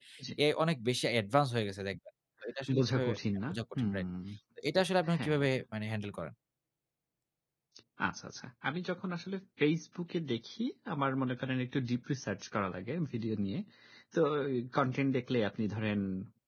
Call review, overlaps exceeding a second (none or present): none